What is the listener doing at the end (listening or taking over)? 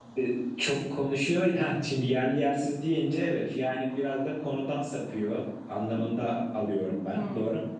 taking over